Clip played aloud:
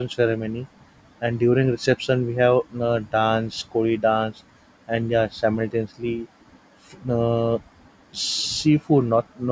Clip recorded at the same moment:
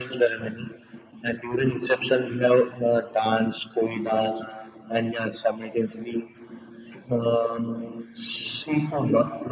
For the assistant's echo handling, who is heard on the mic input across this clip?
echo only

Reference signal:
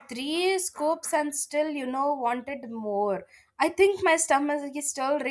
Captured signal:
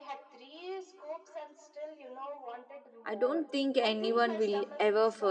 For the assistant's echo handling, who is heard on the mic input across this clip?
both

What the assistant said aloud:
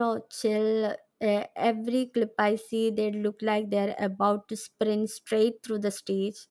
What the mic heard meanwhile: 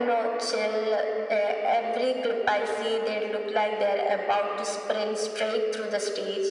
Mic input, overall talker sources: echo only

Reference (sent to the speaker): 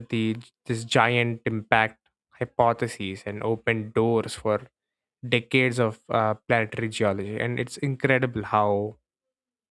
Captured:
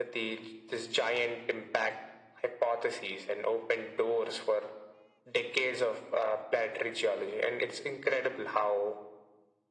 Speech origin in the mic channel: echo only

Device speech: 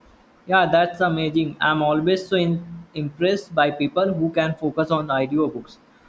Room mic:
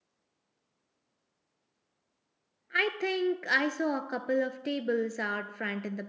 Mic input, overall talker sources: user only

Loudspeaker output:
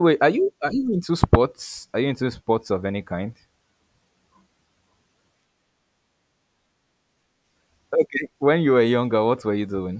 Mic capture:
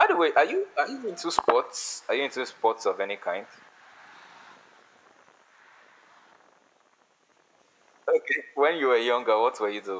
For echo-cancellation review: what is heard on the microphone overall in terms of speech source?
echo only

